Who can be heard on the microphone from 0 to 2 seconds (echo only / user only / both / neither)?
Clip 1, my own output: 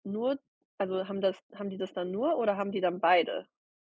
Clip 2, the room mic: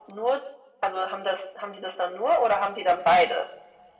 echo only